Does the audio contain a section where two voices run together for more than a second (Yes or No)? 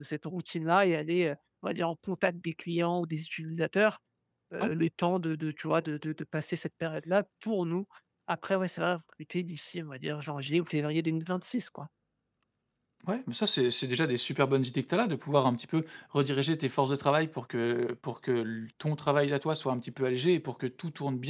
No